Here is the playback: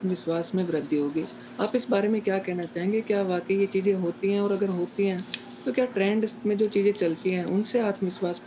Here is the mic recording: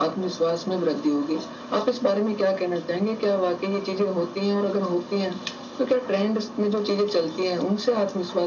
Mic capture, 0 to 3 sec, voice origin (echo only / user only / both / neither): echo only